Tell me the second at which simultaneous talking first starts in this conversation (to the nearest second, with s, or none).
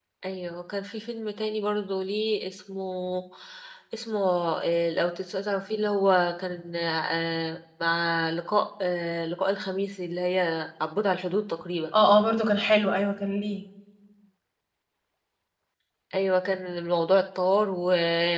none